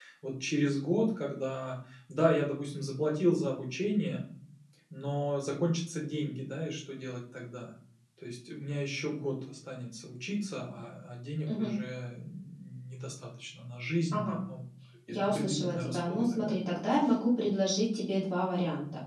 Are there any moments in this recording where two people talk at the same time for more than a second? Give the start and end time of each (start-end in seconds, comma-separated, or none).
15.2-16.6